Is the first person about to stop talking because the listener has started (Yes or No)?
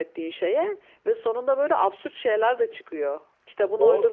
Yes